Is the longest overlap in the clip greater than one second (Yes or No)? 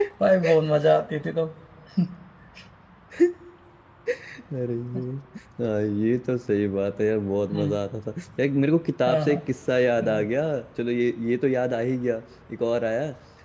No